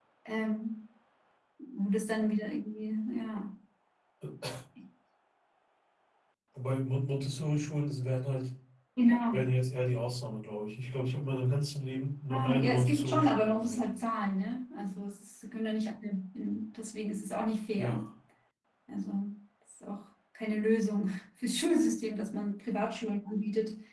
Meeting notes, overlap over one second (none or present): present